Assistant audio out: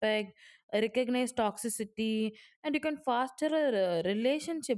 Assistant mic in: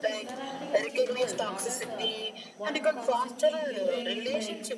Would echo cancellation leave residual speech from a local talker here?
Yes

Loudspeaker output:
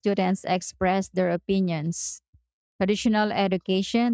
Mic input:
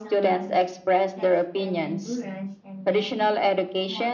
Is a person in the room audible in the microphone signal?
Yes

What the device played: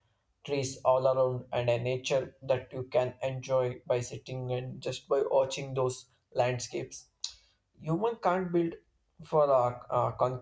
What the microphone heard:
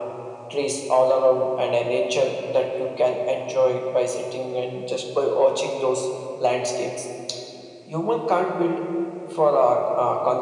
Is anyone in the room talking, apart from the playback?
No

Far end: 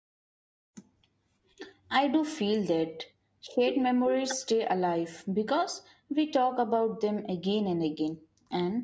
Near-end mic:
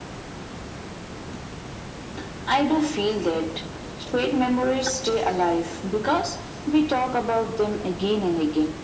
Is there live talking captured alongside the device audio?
No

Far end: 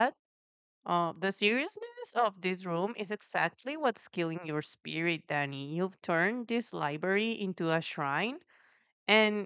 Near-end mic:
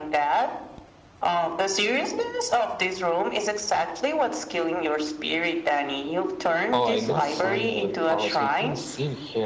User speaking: Yes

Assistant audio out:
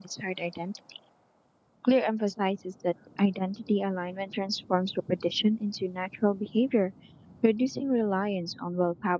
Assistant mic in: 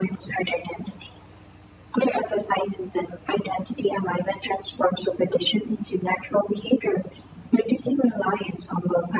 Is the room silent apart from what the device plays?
Yes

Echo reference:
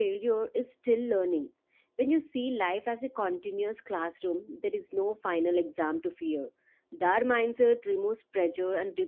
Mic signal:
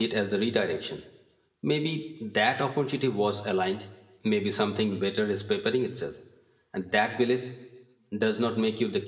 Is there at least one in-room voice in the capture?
Yes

